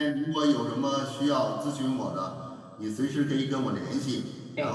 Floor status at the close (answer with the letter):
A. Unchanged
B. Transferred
A